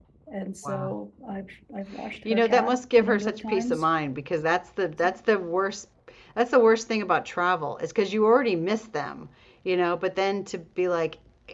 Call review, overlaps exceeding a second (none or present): present